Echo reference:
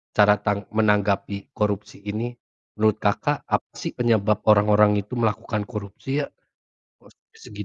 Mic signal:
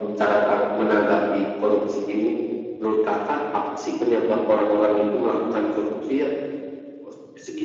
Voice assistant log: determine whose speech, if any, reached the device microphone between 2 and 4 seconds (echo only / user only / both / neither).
echo only